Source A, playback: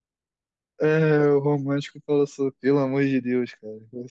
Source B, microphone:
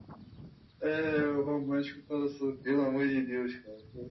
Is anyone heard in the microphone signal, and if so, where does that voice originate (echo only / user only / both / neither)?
echo only